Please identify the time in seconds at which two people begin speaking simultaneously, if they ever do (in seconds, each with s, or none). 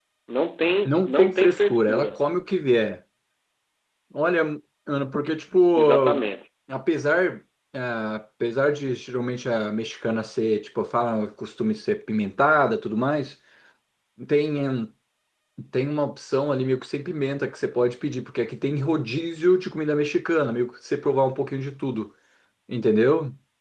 0.8 s